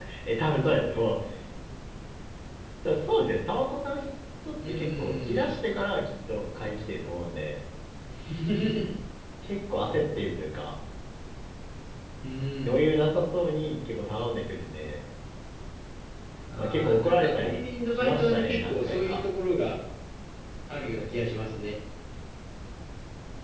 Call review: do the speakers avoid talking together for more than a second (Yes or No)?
No